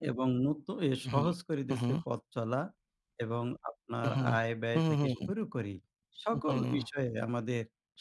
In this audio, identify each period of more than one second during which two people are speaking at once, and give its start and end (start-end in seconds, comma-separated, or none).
none